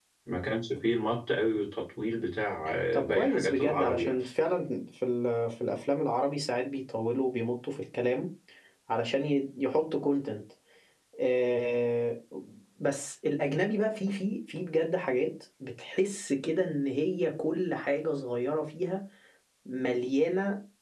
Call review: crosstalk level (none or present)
present